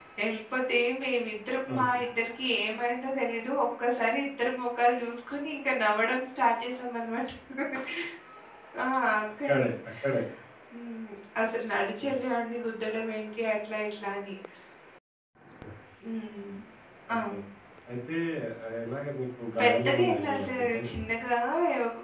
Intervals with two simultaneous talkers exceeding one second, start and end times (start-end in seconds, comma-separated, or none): 19.6-20.9